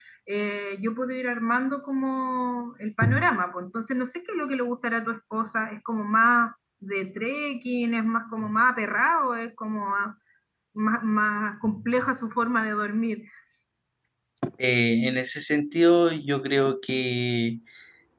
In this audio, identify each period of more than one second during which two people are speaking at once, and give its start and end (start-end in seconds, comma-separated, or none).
none